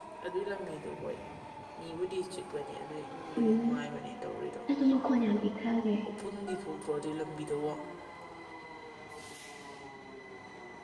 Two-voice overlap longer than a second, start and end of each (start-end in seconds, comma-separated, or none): none